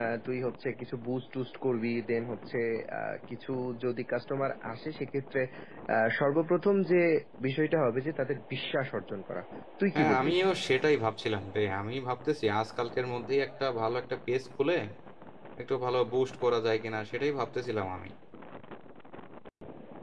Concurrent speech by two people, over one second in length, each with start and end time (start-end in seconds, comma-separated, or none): none